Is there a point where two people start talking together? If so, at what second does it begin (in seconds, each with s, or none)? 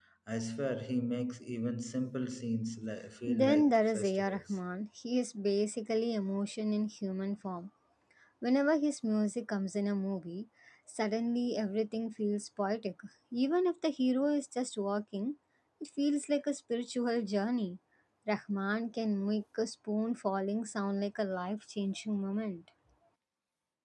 3.3 s